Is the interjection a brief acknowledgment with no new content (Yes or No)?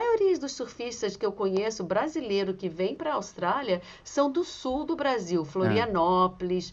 Yes